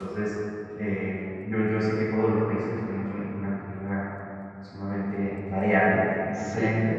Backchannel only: Yes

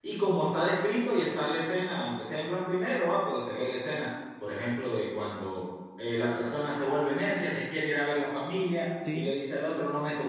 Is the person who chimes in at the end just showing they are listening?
Yes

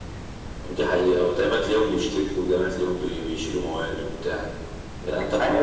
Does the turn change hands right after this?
Yes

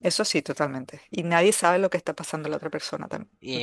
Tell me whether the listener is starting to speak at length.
Yes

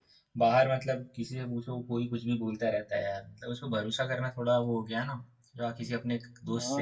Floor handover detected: Yes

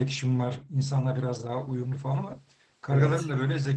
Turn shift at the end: No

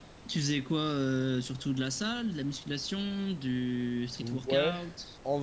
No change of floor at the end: No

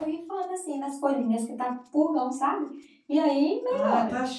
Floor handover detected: Yes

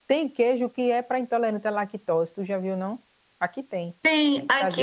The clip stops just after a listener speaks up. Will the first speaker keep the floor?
No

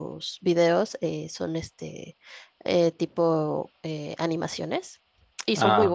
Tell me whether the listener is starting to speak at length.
No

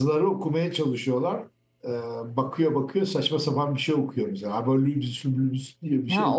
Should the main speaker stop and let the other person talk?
Yes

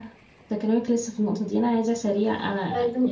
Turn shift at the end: No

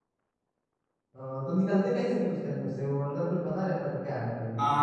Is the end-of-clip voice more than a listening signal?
Yes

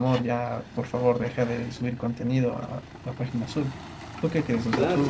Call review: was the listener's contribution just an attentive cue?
No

